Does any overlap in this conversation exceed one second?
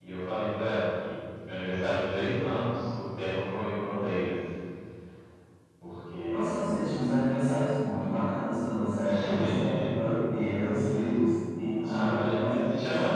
Yes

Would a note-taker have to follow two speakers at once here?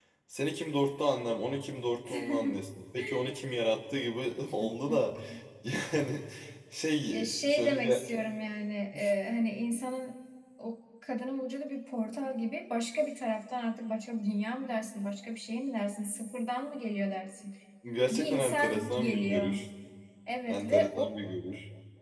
Yes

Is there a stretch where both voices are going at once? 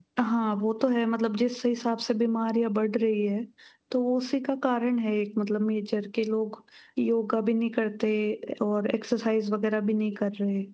No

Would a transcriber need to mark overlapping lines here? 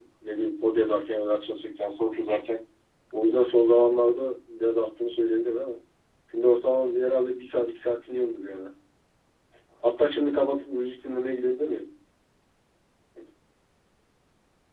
No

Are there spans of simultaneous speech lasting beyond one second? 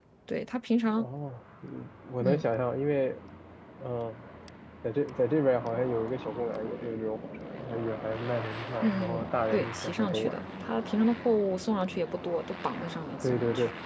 Yes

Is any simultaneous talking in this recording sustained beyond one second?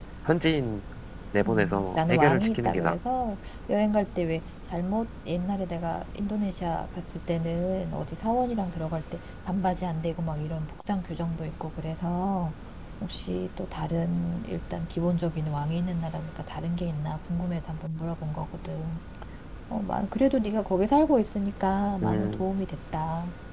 Yes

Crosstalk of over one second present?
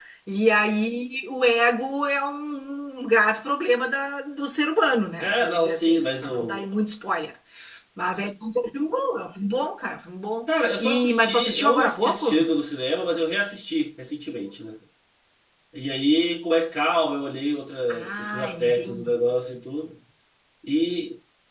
Yes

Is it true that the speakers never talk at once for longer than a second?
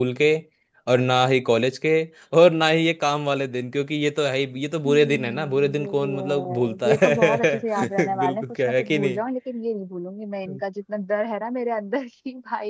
No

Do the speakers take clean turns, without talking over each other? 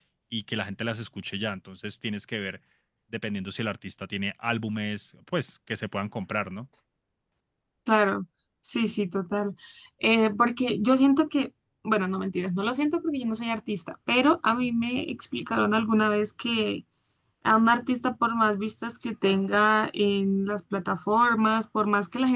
Yes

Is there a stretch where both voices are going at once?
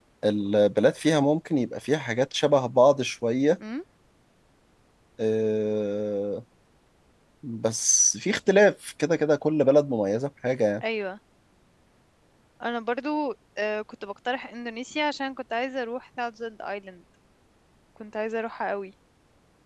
No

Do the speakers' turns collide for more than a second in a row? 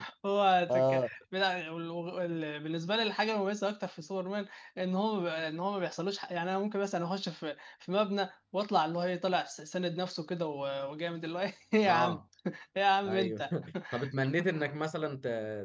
No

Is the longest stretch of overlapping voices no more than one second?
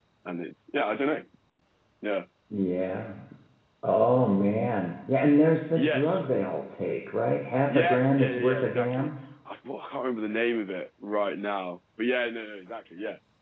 No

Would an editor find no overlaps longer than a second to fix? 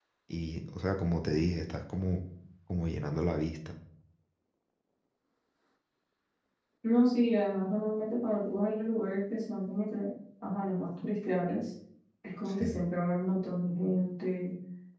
Yes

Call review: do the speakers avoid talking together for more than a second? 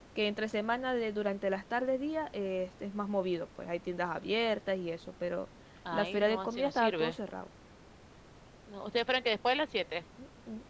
No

